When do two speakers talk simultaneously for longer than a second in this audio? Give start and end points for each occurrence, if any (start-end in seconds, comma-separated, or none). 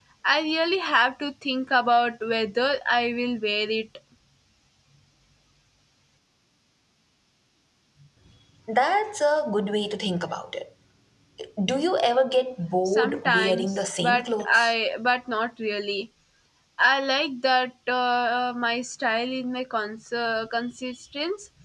12.8-14.7